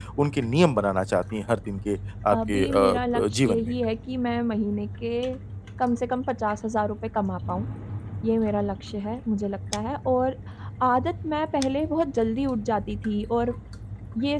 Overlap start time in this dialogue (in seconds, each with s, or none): 2.3 s